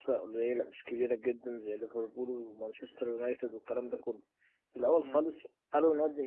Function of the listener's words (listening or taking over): listening